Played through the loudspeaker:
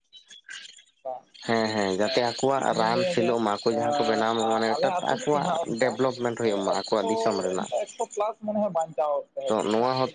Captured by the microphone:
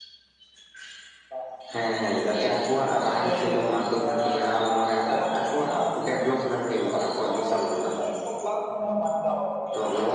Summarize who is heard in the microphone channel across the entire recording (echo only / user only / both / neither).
echo only